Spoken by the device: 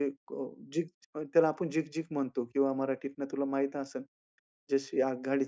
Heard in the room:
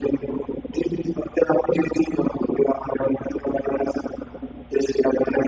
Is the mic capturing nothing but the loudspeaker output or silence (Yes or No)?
Yes